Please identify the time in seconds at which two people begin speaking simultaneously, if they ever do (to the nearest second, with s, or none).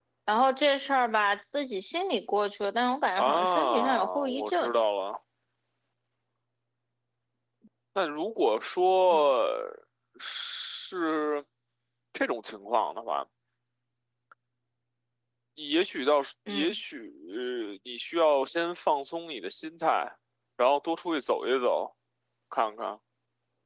3 s